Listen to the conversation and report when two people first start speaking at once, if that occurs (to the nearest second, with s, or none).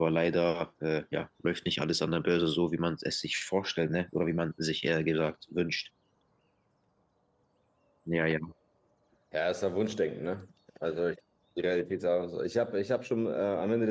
none